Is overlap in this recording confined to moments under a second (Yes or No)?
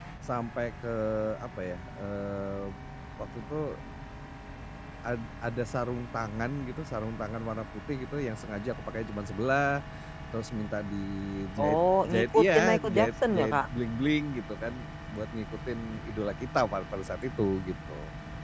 No